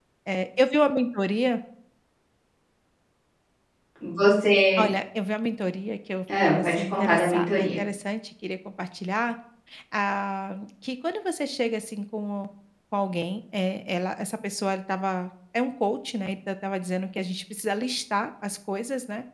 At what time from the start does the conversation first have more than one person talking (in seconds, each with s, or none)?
6.3 s